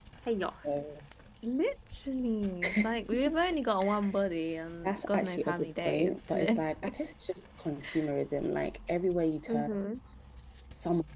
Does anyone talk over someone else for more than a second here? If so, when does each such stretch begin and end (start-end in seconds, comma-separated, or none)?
4.8-6.6